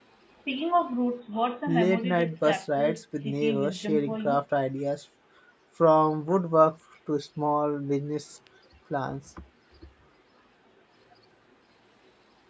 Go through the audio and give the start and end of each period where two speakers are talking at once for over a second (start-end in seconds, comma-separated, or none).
1.7-4.4